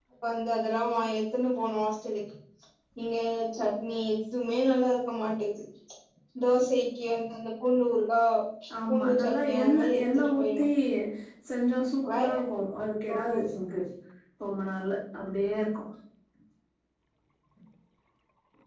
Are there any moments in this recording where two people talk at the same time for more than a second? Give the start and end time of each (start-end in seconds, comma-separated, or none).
8.9-10.6